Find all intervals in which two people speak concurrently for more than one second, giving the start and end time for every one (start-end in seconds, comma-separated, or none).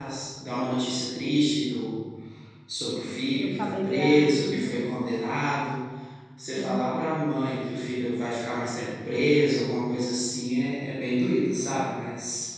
3.3-4.8